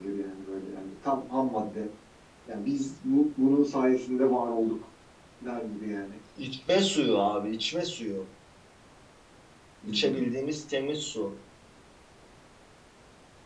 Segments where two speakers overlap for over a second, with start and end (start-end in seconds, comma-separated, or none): none